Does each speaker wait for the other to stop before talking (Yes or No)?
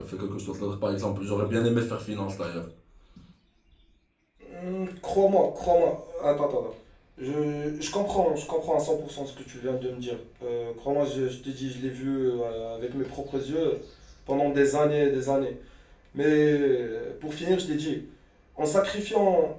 Yes